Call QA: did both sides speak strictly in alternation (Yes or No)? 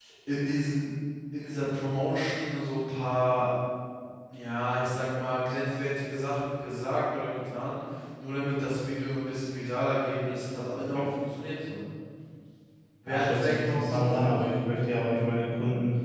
No